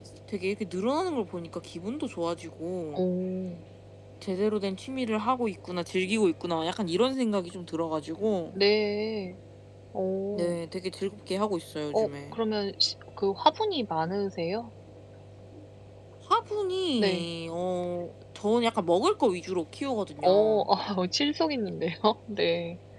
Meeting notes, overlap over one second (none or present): none